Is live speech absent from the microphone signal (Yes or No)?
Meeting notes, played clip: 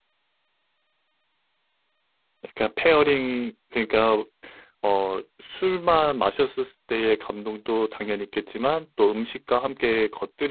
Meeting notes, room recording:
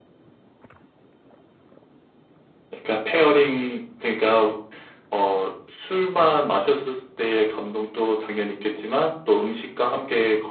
Yes